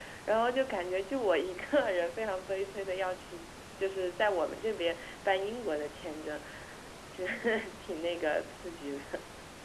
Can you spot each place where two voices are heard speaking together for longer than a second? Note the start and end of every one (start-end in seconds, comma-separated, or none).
none